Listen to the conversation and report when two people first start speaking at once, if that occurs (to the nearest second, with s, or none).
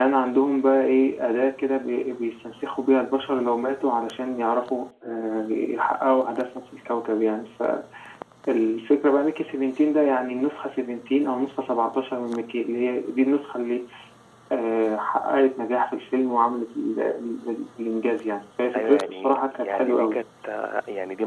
19 s